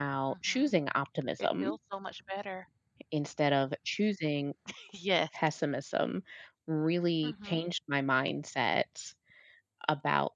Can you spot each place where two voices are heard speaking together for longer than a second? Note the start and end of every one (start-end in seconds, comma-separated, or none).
none